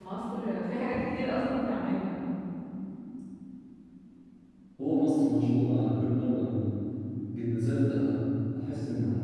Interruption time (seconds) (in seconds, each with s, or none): none